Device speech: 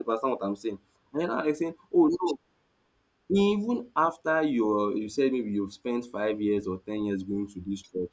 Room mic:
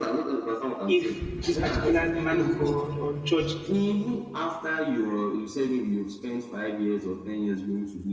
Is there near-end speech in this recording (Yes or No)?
Yes